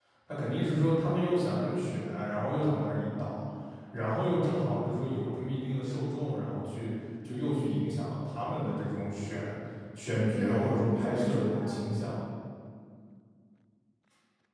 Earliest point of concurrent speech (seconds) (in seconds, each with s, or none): 10.3 s